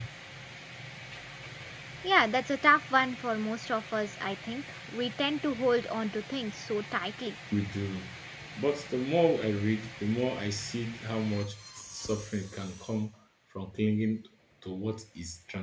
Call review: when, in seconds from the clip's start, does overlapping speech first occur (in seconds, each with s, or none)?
none